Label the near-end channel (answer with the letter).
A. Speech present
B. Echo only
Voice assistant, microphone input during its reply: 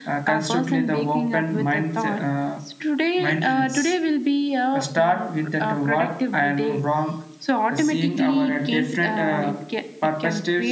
B